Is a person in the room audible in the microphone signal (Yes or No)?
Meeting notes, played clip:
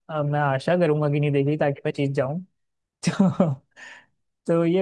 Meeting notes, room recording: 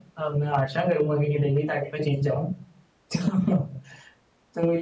No